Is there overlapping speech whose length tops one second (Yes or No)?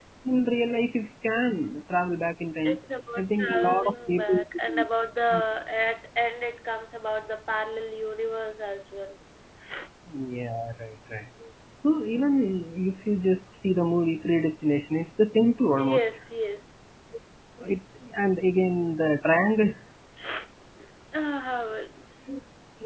Yes